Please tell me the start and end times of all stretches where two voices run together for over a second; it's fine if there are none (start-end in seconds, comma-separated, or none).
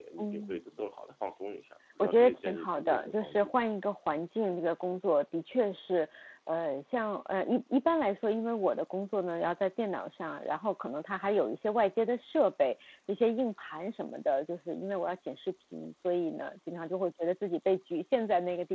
2.0-3.5